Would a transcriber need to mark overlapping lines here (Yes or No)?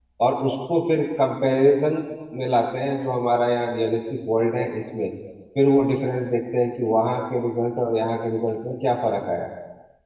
No